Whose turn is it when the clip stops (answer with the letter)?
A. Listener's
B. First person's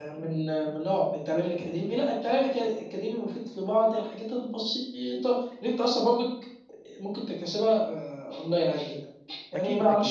B